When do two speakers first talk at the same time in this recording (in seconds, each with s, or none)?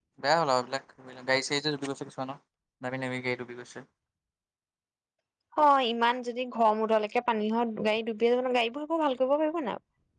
none